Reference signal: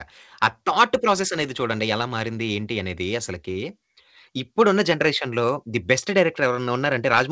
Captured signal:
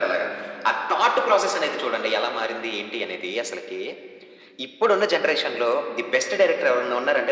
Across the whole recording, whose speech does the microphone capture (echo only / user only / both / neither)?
echo only